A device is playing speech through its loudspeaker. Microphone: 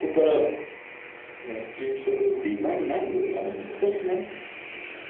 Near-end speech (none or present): present